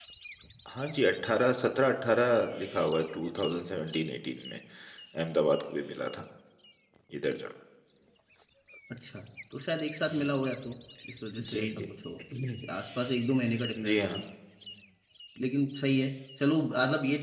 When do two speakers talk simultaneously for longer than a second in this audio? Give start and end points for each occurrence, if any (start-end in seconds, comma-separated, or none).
none